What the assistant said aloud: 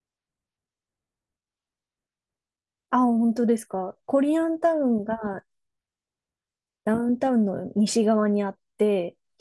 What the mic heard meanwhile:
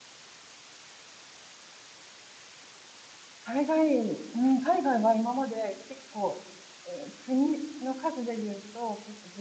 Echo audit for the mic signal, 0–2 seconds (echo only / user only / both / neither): neither